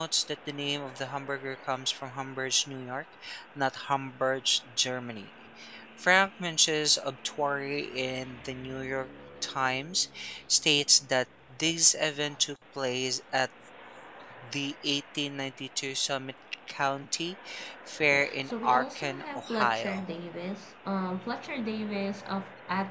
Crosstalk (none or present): present